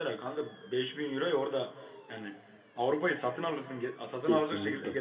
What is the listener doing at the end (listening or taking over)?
taking over